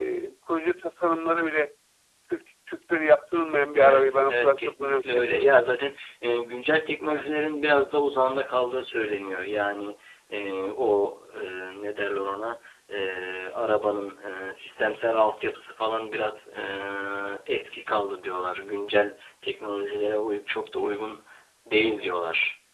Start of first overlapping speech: 3.8 s

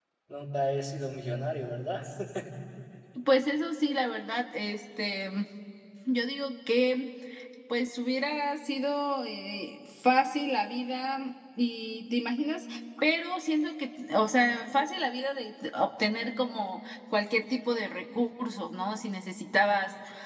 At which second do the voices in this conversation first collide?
none

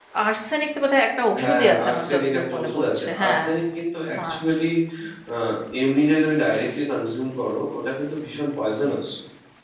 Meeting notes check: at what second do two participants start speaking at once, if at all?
1.3 s

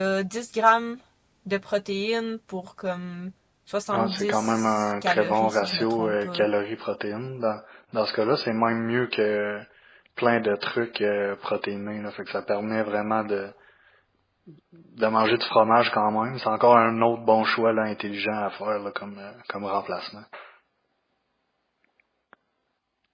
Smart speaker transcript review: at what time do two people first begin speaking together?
3.9 s

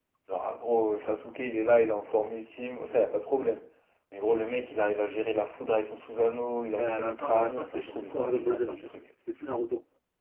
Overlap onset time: 6.7 s

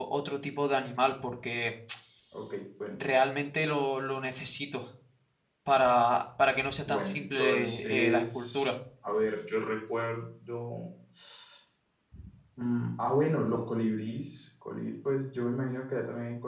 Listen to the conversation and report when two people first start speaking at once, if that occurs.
6.9 s

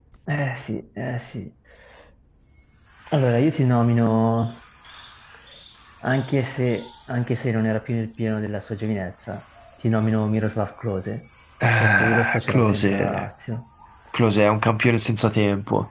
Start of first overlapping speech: 11.8 s

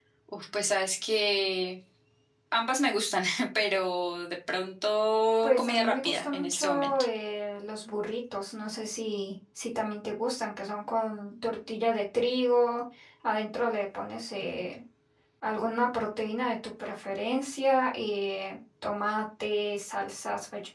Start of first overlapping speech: 5.4 s

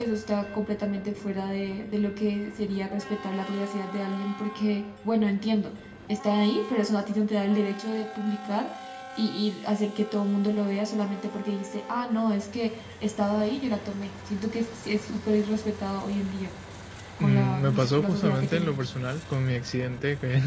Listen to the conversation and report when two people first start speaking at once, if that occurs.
17.2 s

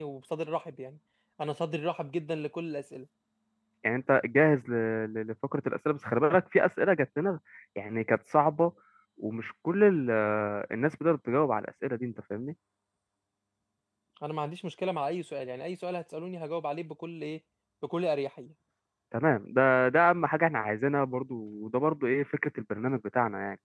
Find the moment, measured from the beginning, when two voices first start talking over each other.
none

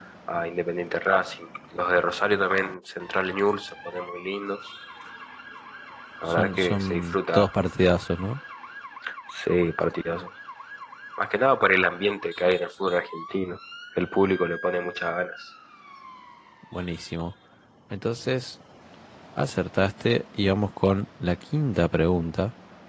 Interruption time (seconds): 6.3 s

